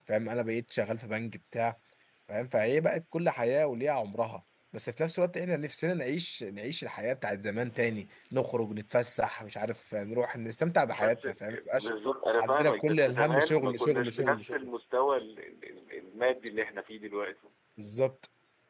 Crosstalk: present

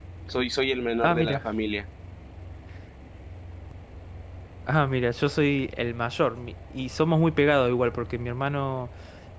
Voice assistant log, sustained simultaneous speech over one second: none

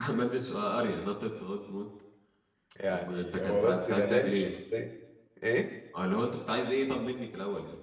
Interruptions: present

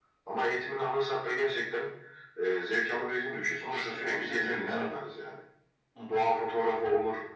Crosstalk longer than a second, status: present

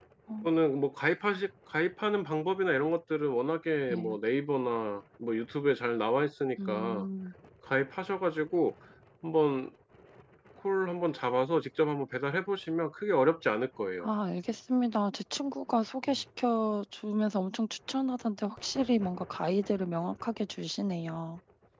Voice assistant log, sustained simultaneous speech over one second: none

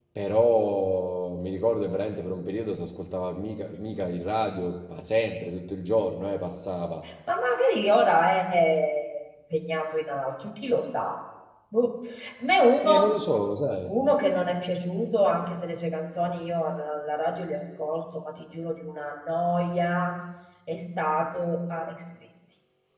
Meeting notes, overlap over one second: none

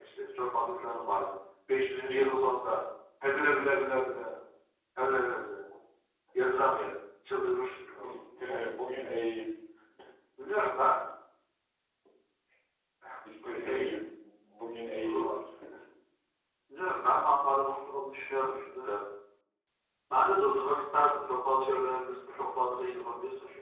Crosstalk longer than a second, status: none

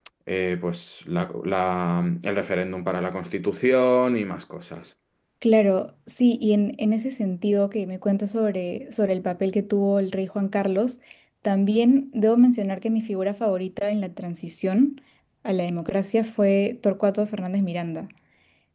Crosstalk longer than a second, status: none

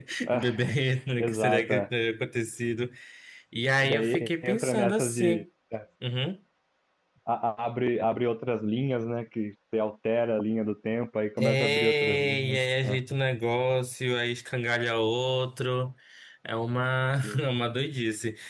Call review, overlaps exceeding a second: present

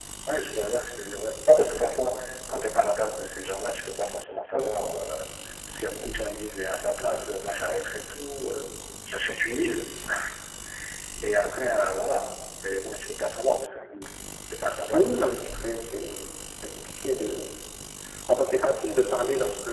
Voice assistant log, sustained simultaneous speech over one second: none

